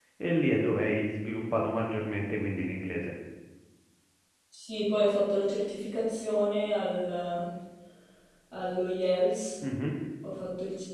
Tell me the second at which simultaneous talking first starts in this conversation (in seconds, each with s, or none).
none